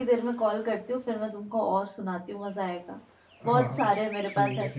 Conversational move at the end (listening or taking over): taking over